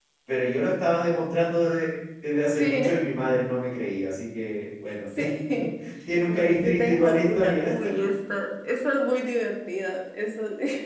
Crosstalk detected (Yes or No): Yes